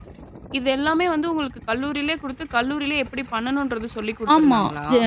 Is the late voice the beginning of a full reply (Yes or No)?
Yes